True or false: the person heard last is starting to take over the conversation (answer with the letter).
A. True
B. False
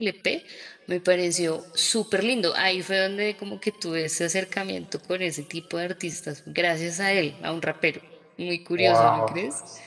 A